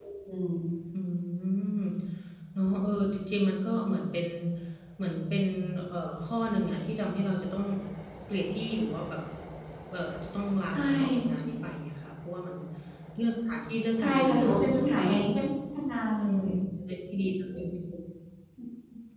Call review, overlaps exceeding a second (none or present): present